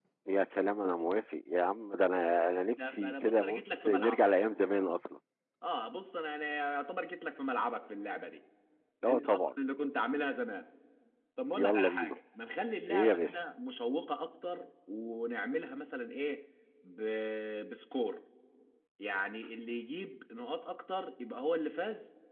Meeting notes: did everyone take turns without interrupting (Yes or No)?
No